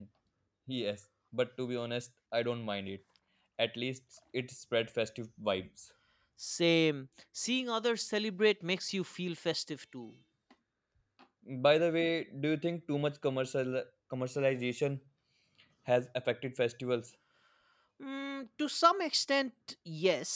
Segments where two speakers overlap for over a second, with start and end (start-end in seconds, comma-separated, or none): none